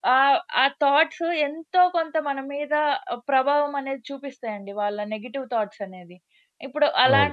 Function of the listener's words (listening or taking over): listening